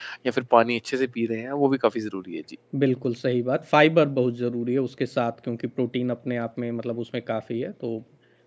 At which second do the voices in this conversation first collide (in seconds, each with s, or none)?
none